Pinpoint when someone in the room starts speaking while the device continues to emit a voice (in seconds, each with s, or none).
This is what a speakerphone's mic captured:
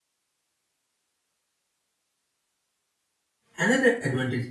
3.5 s